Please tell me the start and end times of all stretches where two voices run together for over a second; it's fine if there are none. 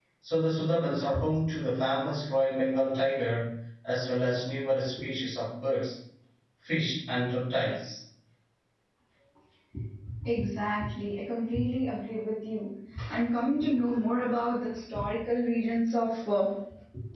none

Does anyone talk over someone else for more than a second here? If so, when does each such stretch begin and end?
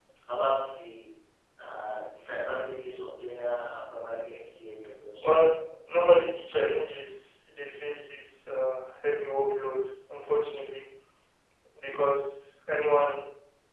none

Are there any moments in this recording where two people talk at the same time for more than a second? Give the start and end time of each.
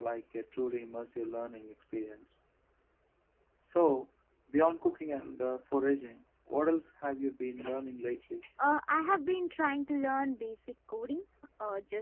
none

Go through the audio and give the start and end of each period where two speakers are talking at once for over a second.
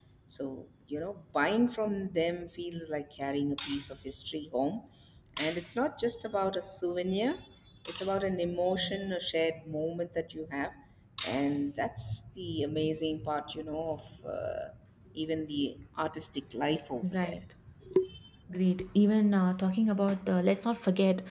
none

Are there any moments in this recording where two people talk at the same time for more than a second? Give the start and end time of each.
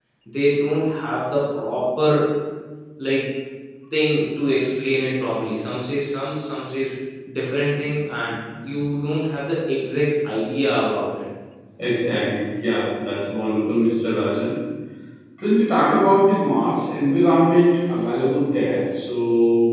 none

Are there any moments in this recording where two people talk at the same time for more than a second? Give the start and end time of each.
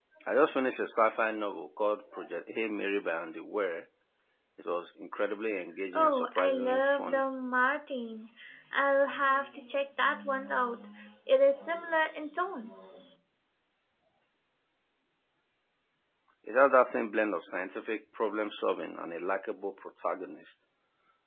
5.9-7.2

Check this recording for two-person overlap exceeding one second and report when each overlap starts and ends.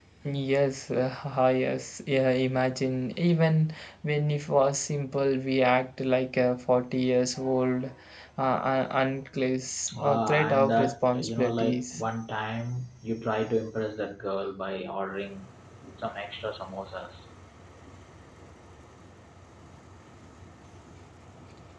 9.9-12.0

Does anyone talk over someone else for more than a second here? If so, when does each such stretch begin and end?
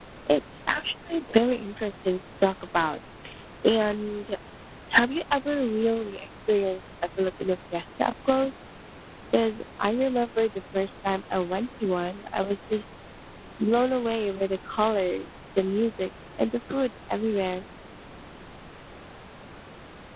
none

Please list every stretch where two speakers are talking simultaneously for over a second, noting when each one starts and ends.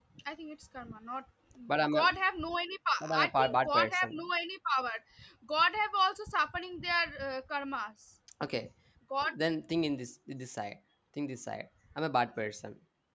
3.0-4.2

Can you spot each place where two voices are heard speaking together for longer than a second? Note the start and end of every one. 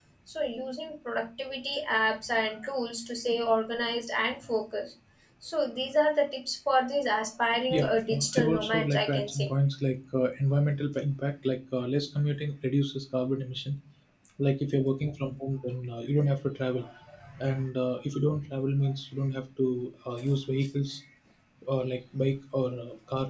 7.7-9.5

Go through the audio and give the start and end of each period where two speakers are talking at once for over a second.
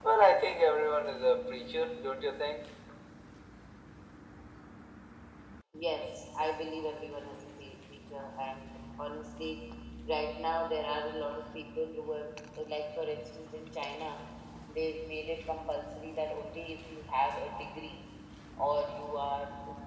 none

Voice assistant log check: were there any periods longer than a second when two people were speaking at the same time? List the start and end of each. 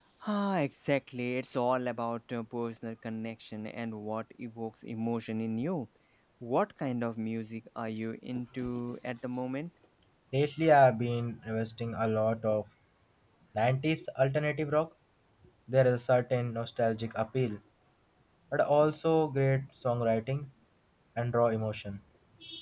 none

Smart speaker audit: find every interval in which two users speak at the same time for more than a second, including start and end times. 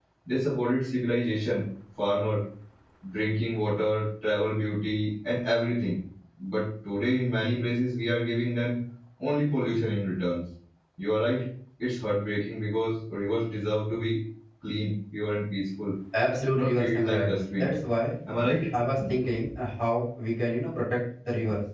16.5-17.8

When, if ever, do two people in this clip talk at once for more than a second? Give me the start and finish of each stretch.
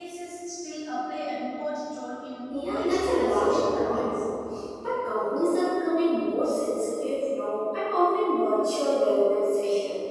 2.7-4.2

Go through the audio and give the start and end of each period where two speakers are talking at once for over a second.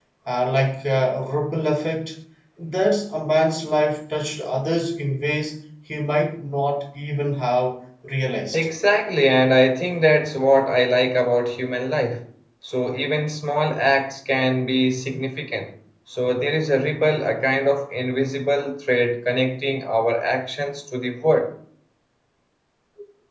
none

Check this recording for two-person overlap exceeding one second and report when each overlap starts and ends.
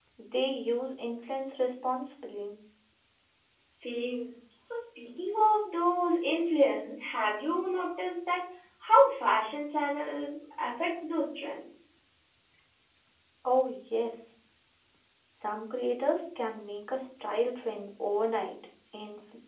none

